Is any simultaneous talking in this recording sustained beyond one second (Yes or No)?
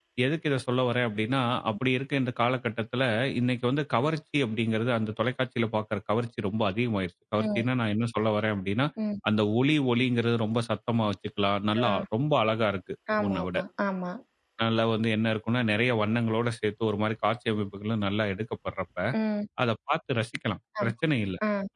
No